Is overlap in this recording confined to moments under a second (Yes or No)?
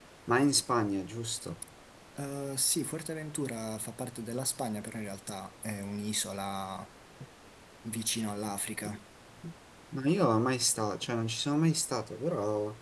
Yes